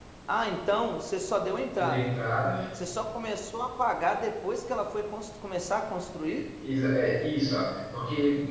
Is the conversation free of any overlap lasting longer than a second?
Yes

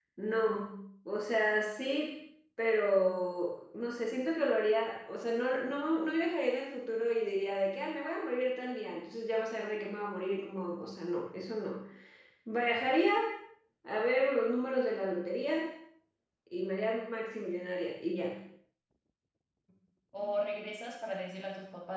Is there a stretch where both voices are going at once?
No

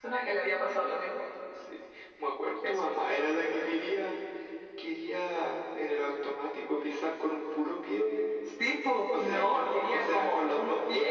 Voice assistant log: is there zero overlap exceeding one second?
No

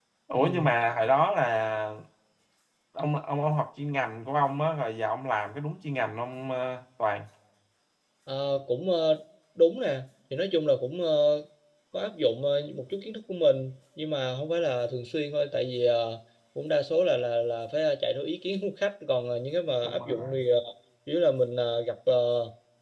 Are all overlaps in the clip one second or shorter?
Yes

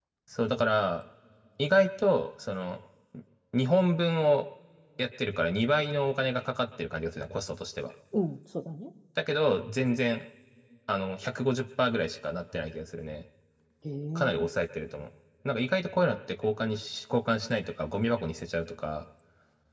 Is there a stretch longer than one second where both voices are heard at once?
No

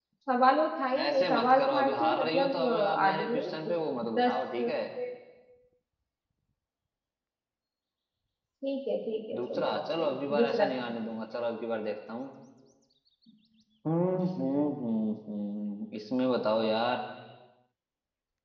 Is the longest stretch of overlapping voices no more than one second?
No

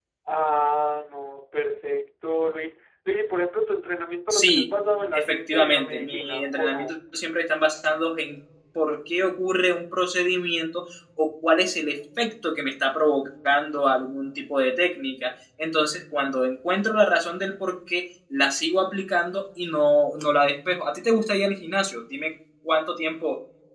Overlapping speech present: Yes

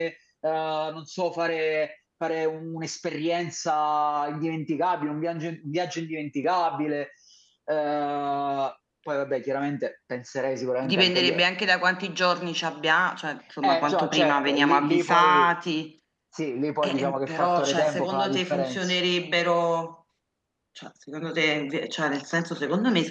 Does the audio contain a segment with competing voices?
Yes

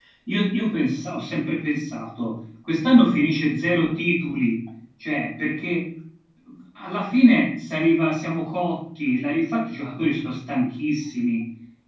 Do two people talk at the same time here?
No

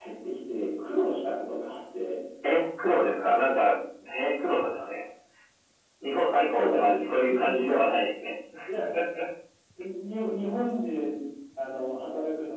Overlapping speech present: Yes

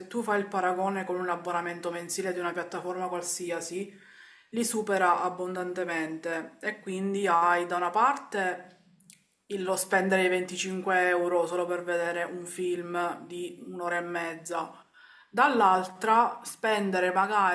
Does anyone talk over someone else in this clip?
No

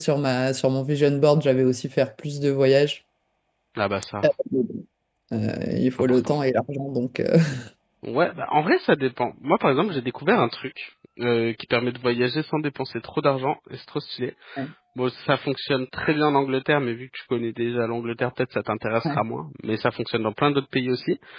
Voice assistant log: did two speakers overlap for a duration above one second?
No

